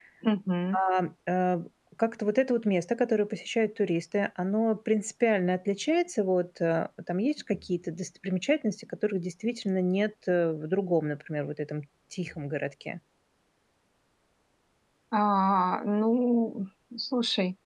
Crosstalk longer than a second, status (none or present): none